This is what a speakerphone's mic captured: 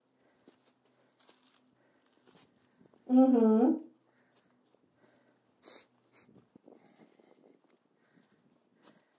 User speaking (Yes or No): Yes